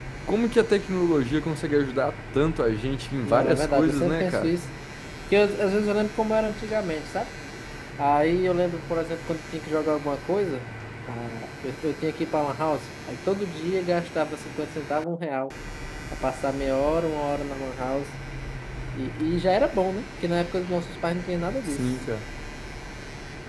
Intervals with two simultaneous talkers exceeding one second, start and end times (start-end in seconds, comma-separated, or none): 3.2-4.5